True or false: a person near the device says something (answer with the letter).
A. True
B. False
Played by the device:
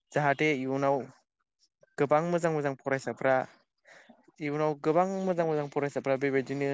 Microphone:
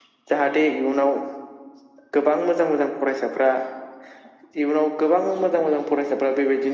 B